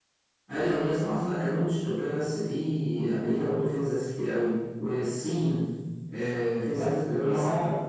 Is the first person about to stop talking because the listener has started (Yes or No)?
Yes